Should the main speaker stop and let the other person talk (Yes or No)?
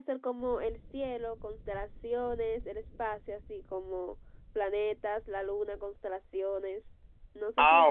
Yes